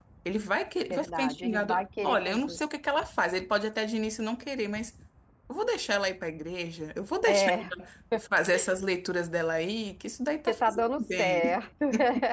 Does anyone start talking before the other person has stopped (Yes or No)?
Yes